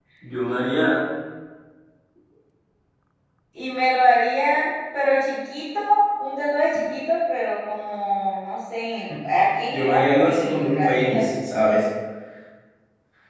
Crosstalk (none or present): present